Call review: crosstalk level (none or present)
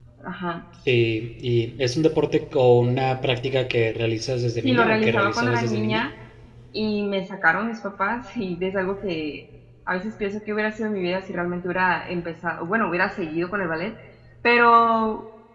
present